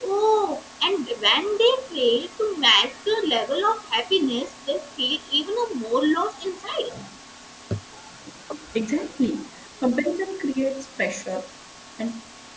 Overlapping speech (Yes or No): No